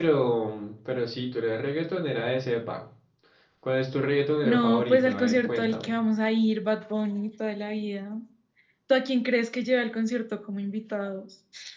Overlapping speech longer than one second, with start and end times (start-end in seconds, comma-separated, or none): 4.4-5.9